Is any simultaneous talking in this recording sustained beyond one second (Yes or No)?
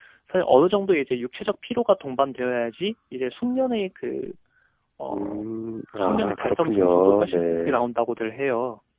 Yes